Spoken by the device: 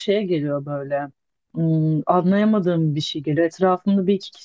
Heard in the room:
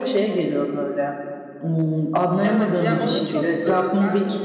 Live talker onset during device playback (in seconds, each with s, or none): 2.4 s